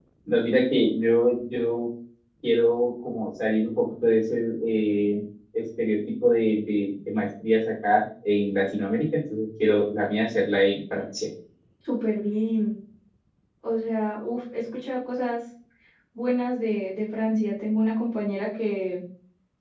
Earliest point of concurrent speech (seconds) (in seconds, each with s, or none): none